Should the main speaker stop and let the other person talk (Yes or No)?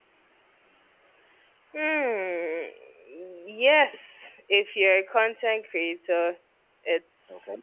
No